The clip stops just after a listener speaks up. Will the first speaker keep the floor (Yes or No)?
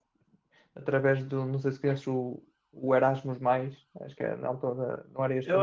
No